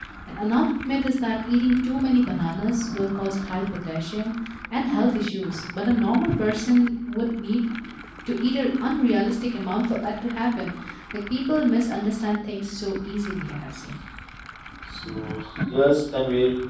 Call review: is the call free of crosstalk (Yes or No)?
Yes